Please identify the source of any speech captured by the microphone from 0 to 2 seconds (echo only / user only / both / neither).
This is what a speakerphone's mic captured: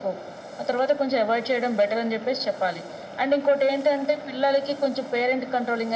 echo only